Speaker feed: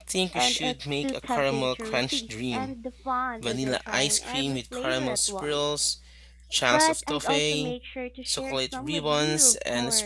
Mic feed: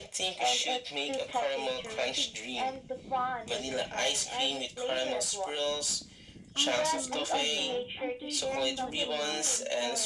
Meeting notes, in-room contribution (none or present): present